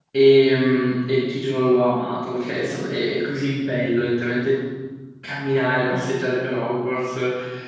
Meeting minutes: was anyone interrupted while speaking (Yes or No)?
No